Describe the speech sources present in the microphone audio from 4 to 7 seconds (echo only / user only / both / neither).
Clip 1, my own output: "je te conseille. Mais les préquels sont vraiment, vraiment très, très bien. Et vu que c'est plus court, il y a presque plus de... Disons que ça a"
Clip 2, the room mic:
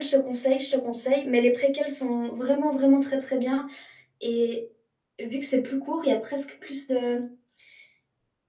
echo only